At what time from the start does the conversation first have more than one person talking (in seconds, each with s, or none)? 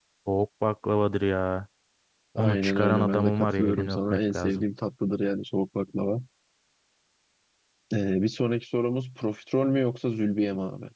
2.4 s